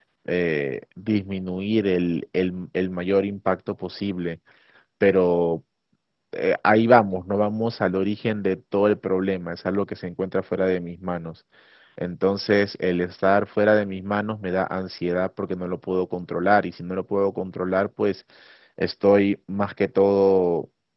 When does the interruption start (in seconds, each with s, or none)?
none